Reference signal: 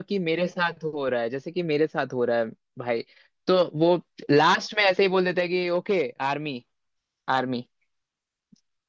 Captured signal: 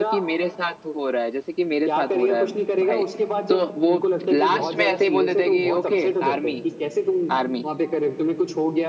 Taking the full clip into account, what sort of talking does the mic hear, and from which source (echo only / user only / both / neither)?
both